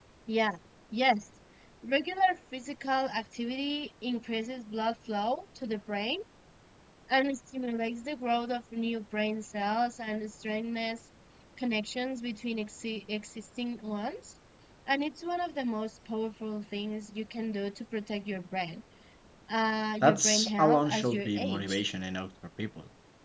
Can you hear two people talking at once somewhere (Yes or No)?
Yes